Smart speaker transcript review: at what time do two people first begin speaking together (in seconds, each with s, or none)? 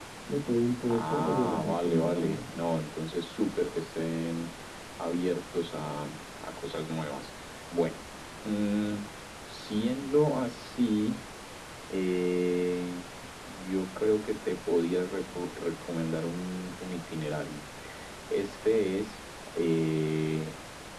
0.9 s